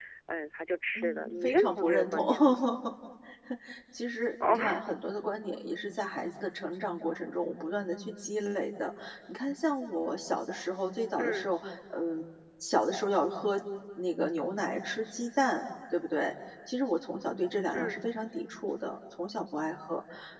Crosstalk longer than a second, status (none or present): present